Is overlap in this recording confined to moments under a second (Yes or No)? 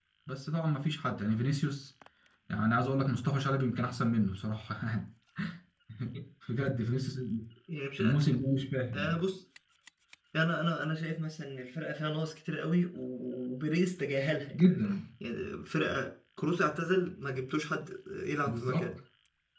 Yes